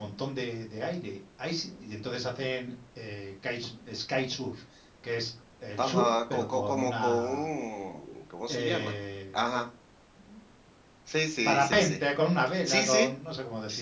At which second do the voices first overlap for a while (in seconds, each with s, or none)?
5.8 s